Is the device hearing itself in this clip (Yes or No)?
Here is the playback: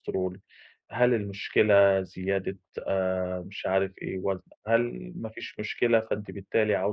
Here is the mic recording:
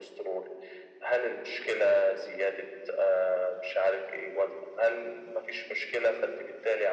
Yes